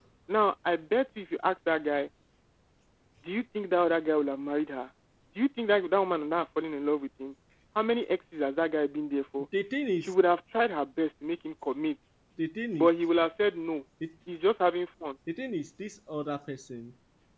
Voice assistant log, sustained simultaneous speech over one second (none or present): none